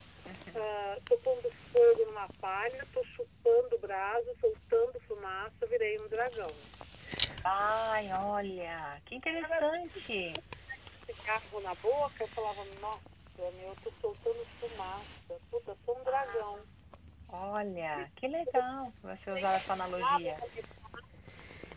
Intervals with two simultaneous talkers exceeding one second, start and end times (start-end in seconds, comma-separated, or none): none